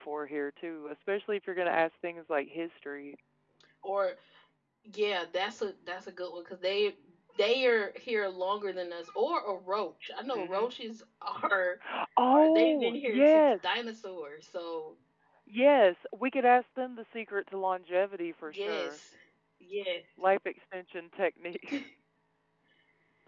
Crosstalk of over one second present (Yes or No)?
Yes